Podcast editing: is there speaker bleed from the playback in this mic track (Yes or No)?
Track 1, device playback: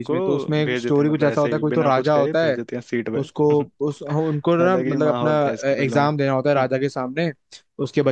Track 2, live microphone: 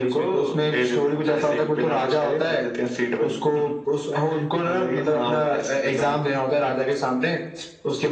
Yes